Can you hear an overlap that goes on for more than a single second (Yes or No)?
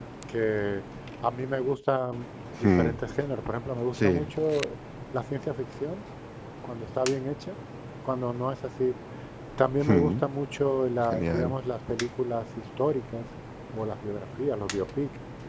No